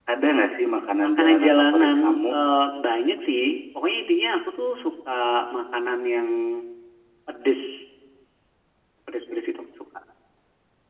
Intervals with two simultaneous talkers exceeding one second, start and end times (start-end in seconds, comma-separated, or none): 1.0-2.3